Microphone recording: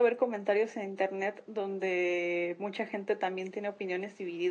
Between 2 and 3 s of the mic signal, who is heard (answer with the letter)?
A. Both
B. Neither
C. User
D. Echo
D